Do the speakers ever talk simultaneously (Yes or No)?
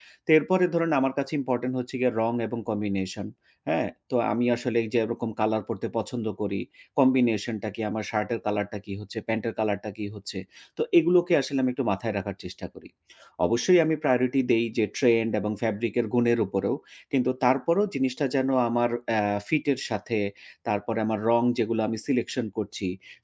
No